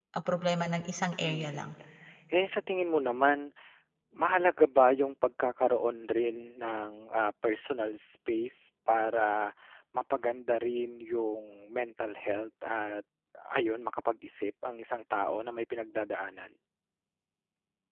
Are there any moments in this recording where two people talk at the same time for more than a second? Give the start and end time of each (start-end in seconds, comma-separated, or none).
none